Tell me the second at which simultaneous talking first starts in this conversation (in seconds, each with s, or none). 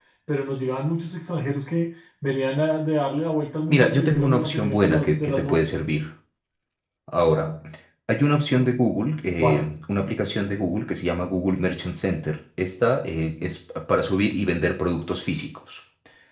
3.7 s